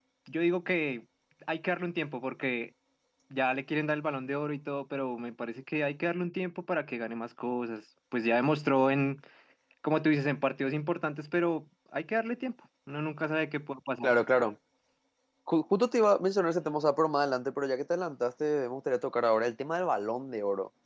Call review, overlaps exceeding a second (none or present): none